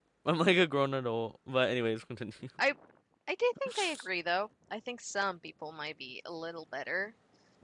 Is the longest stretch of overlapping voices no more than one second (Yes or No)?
Yes